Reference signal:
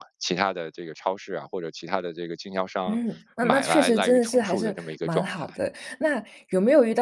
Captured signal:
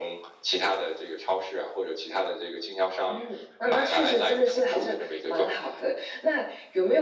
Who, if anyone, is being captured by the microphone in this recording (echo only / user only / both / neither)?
echo only